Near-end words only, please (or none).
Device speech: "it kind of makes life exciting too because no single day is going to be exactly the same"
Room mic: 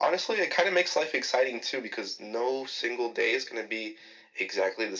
none